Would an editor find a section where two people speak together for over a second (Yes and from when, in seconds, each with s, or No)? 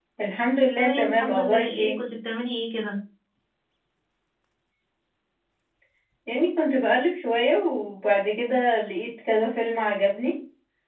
Yes, from 0.8 s